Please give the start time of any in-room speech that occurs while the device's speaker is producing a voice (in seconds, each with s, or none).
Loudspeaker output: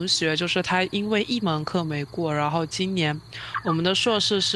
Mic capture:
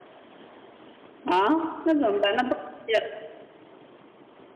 1.2 s